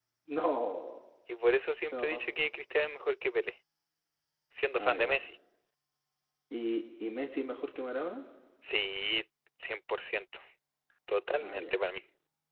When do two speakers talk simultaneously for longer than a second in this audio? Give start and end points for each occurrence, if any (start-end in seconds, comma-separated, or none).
none